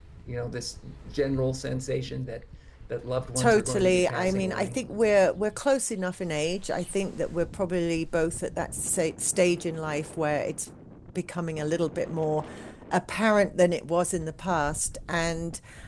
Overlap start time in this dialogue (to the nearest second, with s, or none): 3 s